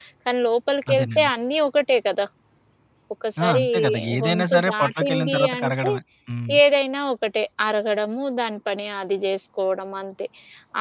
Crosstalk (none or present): present